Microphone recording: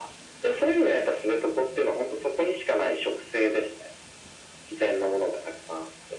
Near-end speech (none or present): none